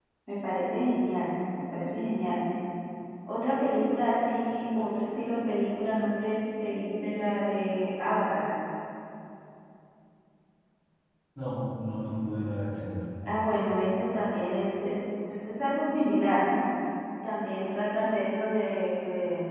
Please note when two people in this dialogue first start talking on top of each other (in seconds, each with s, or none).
none